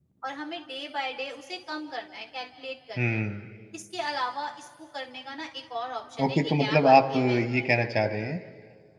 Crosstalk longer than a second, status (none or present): present